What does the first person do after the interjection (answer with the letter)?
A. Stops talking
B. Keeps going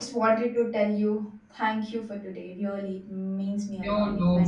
A